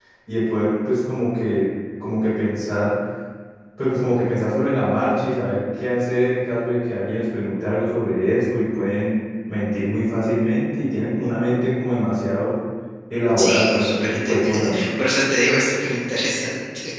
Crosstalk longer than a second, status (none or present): present